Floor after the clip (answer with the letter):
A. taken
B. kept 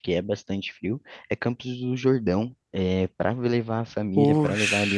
B